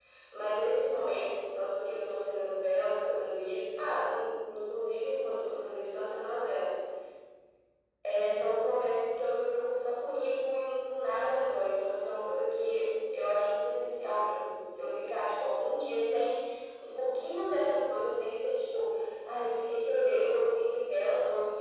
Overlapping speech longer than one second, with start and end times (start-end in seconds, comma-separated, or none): none